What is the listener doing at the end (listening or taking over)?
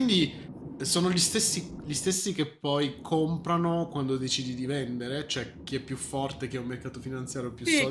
taking over